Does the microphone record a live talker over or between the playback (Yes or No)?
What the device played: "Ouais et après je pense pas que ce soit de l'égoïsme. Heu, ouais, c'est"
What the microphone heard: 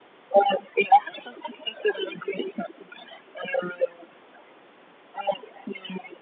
No